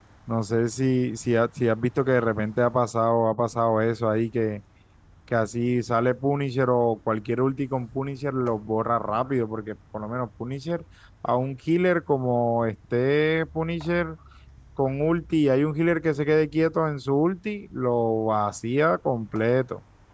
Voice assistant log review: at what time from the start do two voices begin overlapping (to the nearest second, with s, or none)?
none